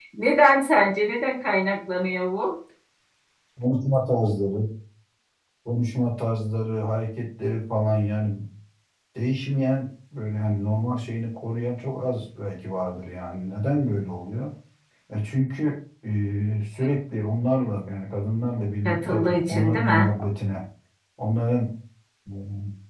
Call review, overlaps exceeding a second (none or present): present